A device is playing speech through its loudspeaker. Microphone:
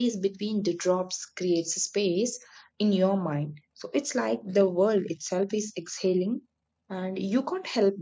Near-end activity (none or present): present